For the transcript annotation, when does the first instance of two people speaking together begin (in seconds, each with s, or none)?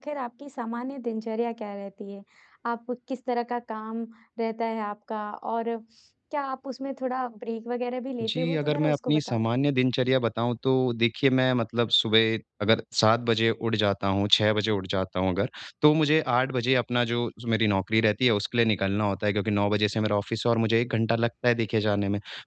8.2 s